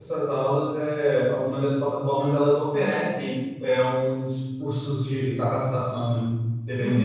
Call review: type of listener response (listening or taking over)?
taking over